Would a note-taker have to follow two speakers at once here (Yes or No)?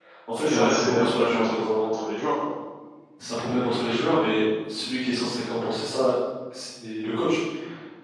Yes